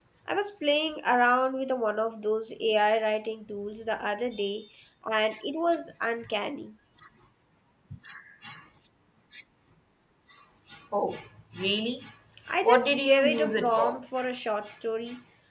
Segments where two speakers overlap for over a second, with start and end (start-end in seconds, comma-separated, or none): 12.6-14.0